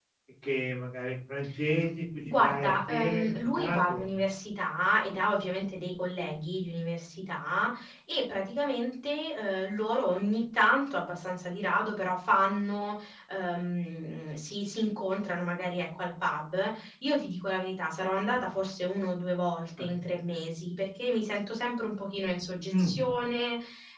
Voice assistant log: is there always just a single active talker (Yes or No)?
No